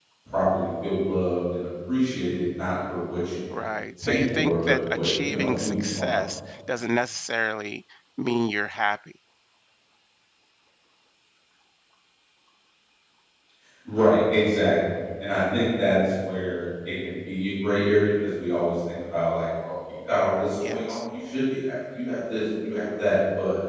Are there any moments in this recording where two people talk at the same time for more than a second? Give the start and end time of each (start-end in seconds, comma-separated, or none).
4.0-6.2